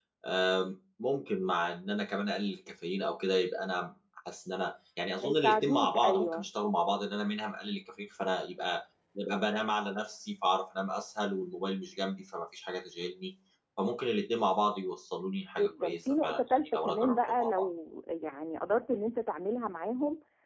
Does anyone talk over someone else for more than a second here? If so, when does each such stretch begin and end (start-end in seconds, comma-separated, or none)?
5.2-6.5, 15.6-17.7